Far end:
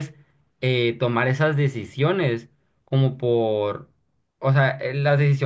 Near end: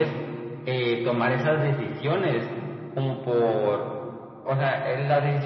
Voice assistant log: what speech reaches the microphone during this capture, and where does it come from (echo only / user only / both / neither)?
echo only